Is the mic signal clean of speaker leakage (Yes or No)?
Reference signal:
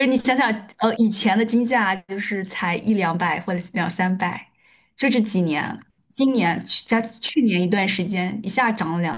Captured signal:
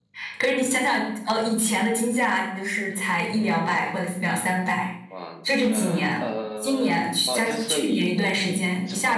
No